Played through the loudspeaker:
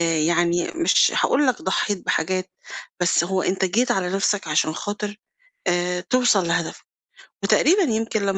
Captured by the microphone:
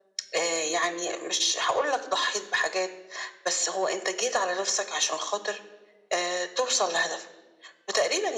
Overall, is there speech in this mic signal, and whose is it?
echo only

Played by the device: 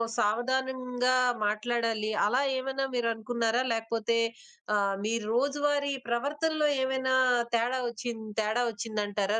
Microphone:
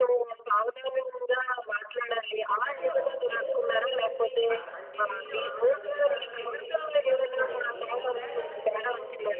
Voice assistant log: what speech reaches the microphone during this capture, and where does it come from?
both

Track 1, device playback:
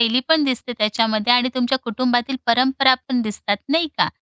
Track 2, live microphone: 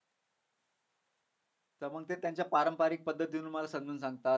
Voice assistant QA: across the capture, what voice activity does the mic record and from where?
user only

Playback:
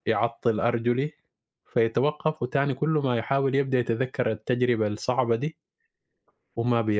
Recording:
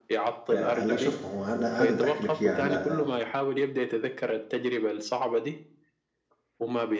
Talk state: both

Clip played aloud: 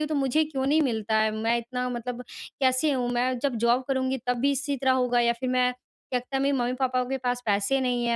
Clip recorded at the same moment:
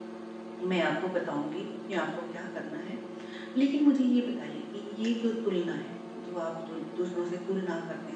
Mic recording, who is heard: user only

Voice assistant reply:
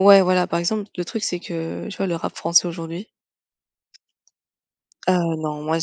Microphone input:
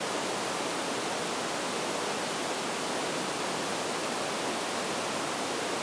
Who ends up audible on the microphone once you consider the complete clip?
neither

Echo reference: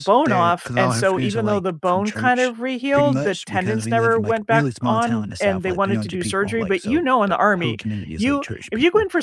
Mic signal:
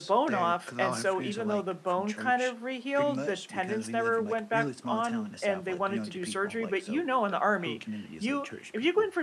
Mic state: echo only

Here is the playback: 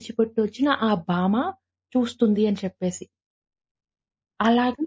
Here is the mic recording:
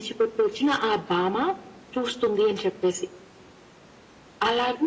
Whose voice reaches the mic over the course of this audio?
echo only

